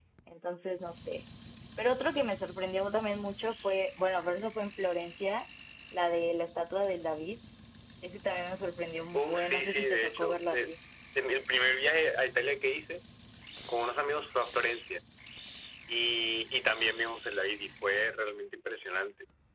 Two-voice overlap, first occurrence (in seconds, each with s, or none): 9.1 s